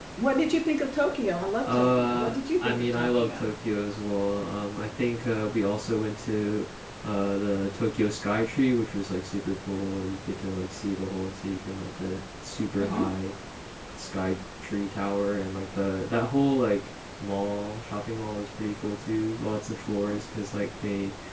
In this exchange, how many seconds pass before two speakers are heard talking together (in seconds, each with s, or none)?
1.7 s